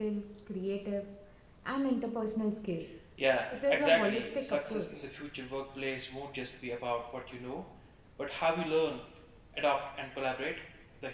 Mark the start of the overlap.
4 s

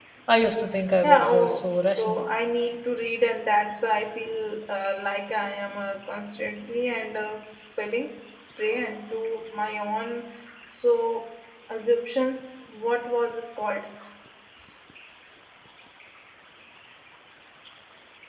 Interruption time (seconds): 1 s

